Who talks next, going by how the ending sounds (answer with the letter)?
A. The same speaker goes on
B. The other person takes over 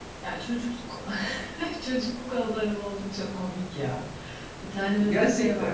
A